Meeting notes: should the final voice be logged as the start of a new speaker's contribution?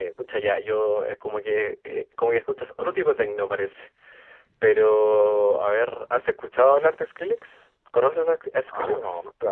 Yes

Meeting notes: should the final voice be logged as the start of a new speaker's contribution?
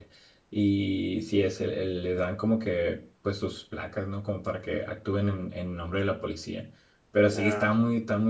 No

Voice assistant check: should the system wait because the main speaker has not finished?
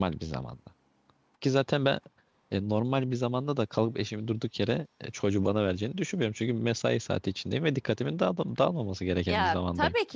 No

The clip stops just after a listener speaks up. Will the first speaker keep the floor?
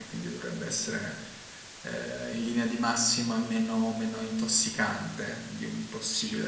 No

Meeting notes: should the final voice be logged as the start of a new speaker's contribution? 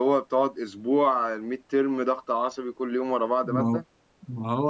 Yes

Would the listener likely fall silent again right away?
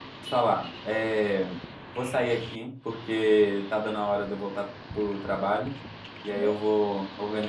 Yes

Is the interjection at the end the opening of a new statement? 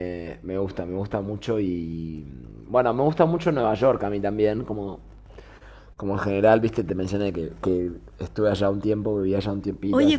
Yes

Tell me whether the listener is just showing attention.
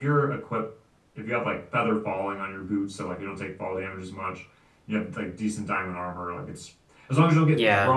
Yes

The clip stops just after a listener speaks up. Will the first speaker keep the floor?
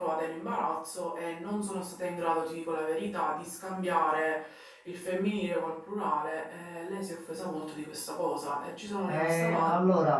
No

